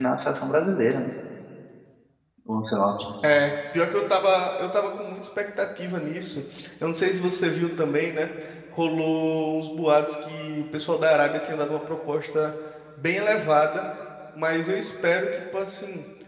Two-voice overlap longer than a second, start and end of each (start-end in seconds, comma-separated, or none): none